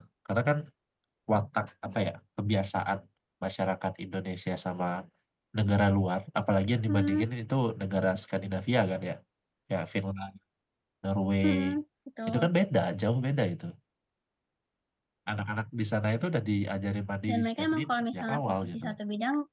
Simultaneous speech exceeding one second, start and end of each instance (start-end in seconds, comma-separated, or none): 17.3-18.8